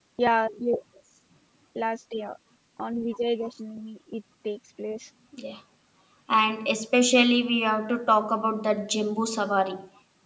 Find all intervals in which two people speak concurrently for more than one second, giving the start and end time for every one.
none

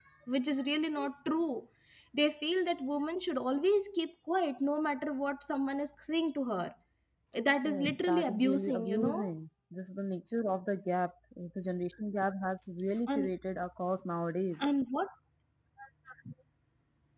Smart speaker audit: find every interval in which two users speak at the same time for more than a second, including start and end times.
7.7-9.3

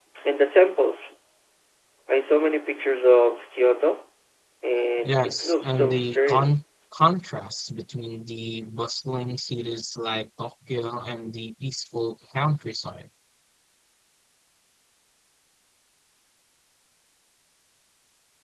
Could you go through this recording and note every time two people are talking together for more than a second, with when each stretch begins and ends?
5.0-6.6

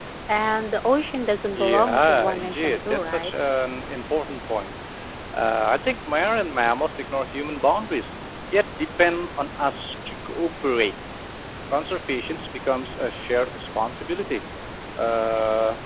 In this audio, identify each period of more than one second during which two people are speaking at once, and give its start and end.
1.5-3.4

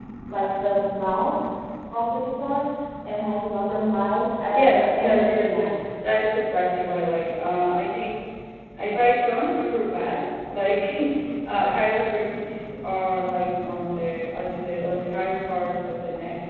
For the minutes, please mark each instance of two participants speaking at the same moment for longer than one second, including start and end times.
4.5-5.7

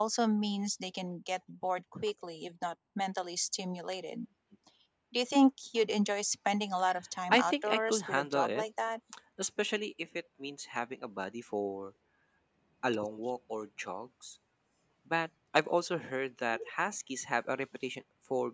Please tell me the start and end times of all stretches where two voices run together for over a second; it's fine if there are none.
7.3-8.6

